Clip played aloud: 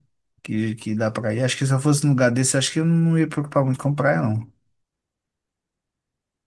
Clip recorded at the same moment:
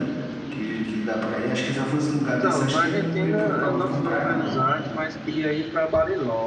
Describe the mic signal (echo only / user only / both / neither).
both